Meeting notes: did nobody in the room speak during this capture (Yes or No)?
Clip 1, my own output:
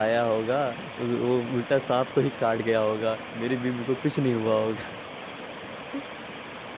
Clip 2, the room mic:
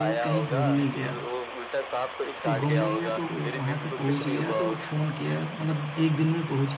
No